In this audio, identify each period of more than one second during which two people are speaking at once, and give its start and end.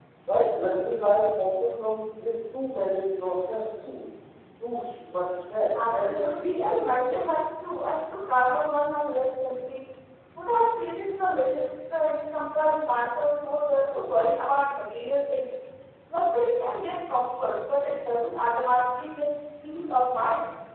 5.9-7.2

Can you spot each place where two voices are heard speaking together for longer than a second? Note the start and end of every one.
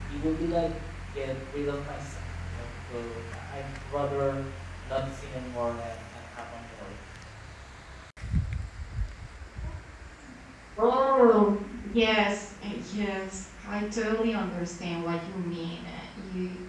none

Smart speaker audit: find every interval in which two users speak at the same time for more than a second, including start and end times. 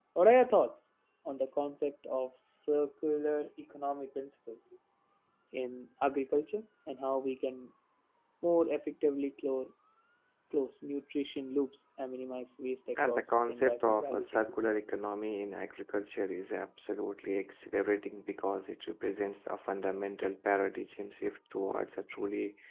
13.0-14.4

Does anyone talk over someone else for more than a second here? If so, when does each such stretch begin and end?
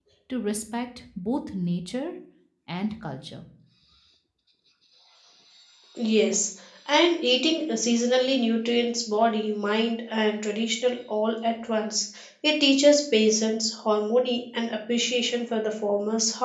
none

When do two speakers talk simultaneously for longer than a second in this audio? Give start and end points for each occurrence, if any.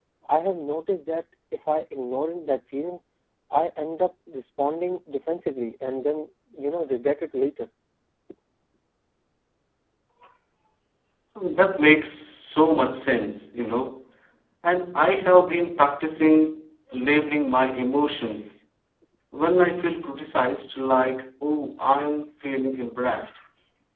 none

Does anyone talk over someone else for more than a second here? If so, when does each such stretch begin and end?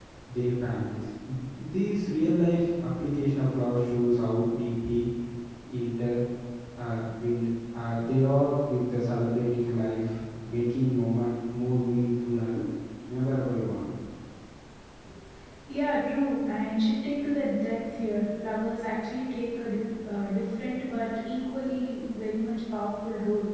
none

